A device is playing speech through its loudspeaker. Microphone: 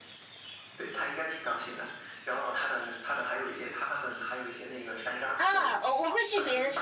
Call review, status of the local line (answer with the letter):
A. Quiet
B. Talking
B